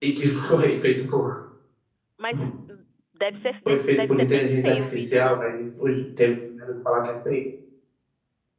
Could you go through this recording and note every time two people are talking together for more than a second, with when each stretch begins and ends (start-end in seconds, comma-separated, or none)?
3.7-5.4